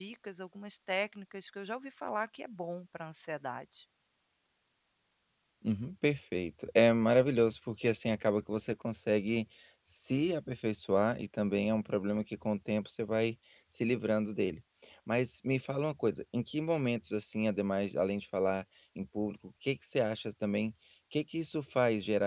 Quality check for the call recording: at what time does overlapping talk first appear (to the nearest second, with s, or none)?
none